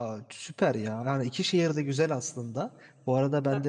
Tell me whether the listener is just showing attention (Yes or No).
Yes